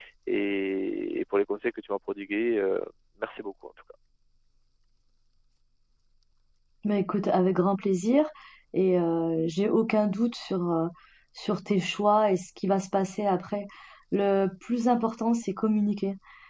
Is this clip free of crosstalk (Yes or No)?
Yes